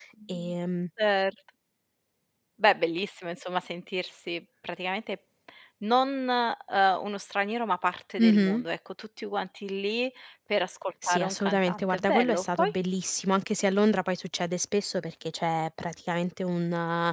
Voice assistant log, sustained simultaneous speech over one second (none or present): present